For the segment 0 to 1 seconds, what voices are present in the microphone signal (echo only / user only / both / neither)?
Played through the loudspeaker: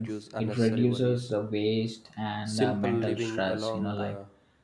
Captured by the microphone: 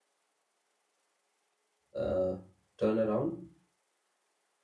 neither